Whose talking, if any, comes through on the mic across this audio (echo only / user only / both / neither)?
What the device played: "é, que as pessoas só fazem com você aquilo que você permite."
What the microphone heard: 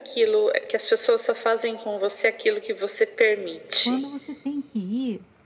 both